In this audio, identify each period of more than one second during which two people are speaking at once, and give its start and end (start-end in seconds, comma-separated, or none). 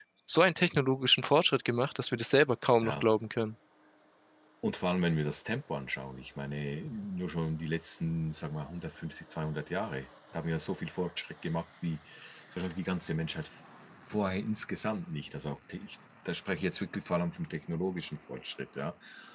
none